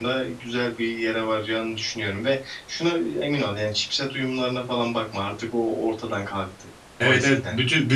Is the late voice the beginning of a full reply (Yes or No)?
Yes